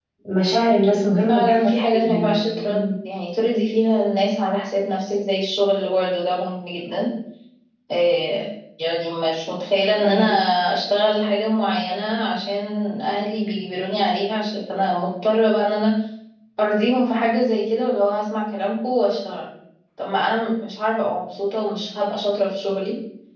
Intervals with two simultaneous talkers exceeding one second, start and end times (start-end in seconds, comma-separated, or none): 1.3-2.9